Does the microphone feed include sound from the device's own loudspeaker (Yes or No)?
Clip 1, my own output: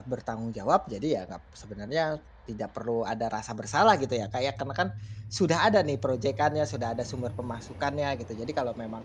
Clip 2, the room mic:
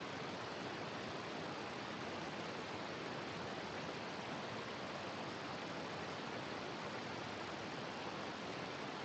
No